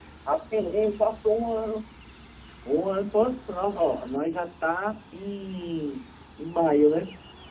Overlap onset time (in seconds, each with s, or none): none